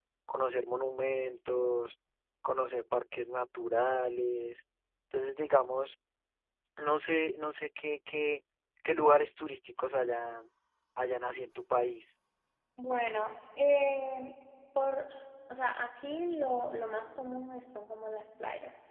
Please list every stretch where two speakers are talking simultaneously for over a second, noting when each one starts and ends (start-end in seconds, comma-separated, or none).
none